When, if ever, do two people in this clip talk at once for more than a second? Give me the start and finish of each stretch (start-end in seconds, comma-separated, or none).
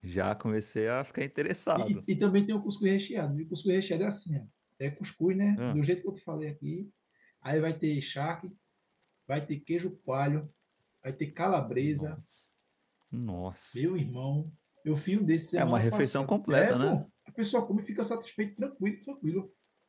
15.6-17.0